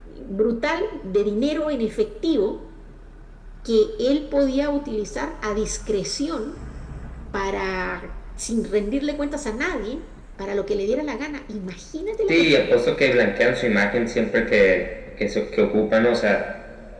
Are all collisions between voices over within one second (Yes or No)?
Yes